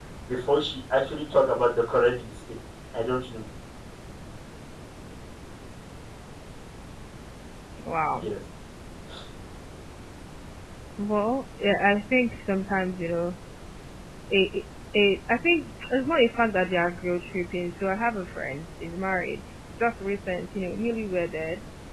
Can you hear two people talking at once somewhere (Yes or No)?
No